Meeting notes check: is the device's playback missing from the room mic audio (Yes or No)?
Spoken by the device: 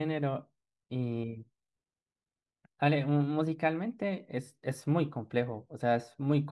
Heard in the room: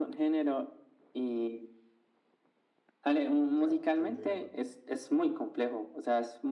No